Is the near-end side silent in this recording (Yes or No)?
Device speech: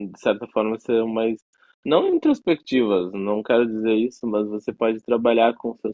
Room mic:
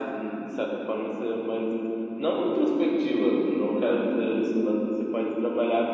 Yes